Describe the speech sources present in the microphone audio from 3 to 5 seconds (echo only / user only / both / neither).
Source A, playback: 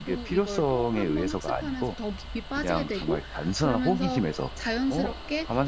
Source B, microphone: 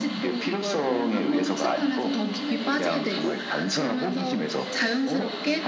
both